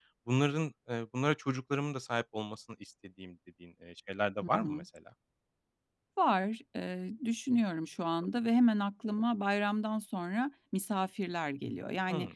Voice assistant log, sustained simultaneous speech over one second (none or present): none